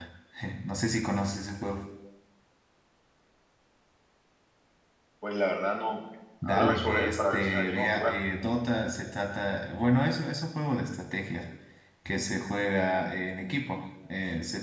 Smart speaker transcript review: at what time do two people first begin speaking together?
6.4 s

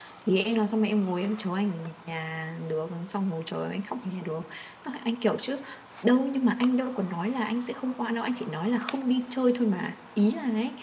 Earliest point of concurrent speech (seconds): none

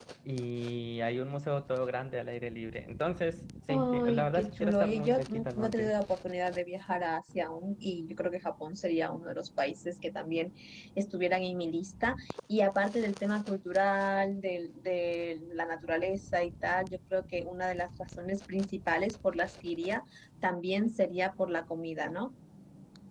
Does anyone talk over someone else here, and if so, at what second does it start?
3.7 s

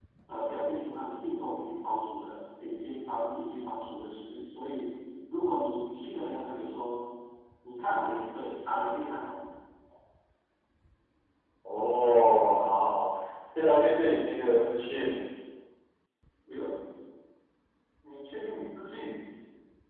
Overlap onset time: none

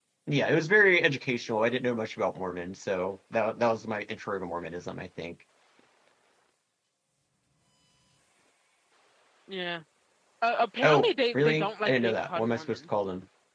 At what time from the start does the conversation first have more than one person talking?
10.8 s

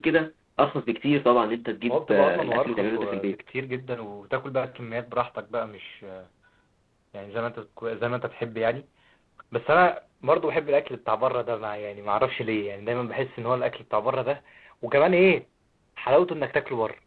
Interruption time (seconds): 1.9 s

